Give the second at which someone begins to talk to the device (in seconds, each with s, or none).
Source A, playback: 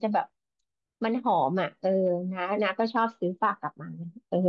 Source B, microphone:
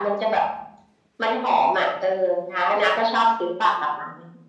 none